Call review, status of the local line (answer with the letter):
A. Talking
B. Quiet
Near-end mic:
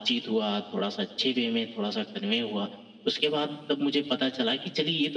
B